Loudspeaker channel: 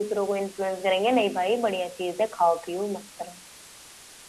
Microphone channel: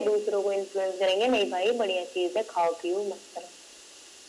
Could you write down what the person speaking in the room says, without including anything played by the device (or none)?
none